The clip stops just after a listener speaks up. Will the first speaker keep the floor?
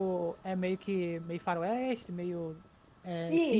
No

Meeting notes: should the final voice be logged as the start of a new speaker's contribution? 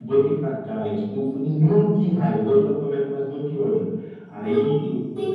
Yes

